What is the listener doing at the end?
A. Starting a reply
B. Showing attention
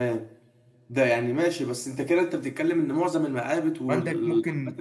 A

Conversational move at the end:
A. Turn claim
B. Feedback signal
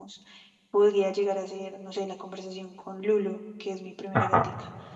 B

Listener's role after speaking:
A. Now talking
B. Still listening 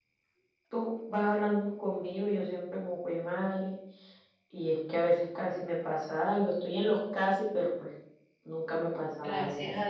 A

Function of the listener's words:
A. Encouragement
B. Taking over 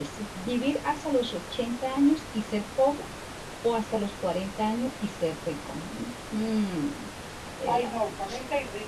B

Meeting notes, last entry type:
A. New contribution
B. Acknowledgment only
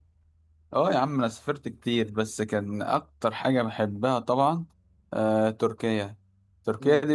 B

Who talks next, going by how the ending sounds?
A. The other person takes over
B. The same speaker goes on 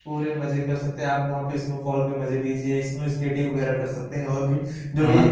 A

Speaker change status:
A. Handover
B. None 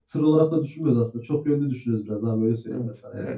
A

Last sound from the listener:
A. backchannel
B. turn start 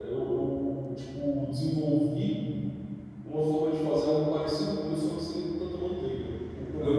A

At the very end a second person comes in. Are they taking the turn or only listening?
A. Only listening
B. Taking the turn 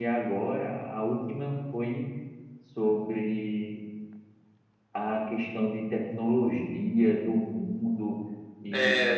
A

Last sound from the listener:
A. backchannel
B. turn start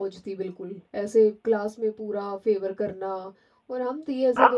B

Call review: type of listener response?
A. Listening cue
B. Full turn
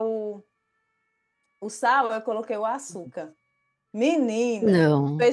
A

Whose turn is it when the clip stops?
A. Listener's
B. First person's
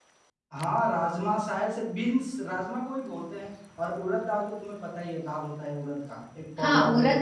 A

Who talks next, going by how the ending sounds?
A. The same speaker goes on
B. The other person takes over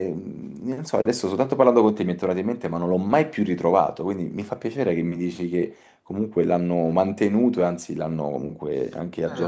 B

